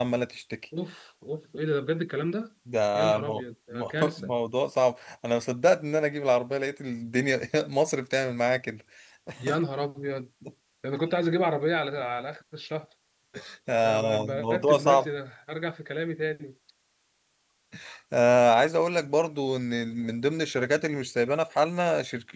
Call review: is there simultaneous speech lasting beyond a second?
Yes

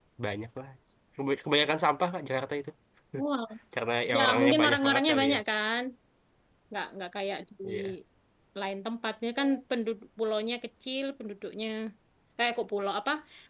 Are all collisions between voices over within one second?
No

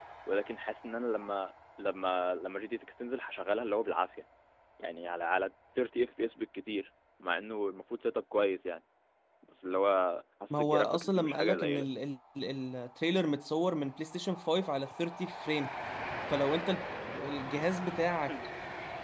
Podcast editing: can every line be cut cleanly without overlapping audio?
No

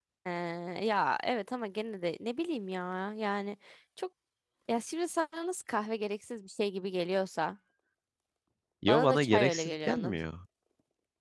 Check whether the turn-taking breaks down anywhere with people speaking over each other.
Yes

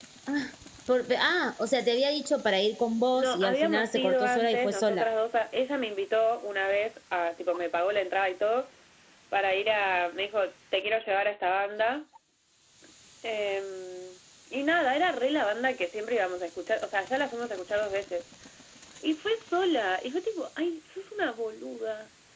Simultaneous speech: Yes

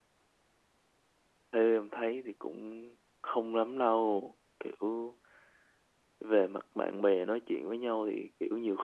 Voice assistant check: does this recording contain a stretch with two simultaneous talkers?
No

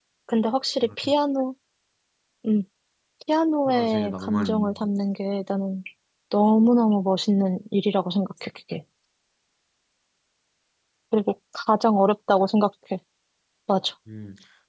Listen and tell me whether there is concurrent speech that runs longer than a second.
Yes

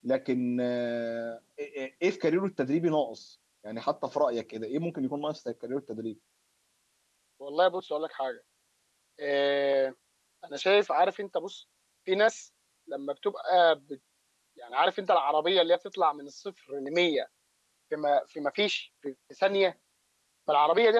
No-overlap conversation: Yes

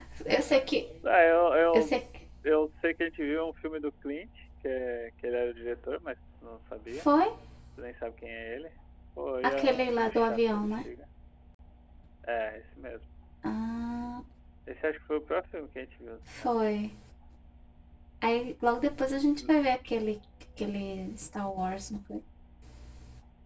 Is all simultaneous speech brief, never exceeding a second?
No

